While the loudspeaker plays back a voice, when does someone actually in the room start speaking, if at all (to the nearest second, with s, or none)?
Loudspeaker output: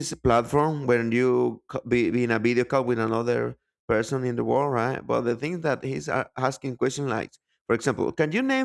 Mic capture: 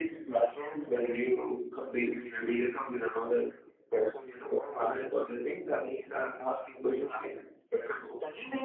none